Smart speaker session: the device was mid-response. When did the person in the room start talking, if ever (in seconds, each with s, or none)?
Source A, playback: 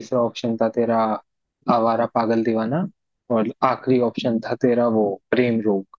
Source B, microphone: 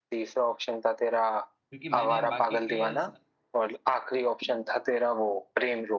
1.7 s